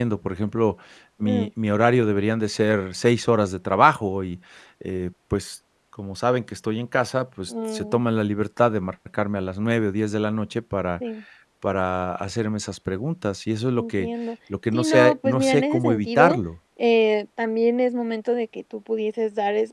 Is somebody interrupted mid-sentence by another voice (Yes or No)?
Yes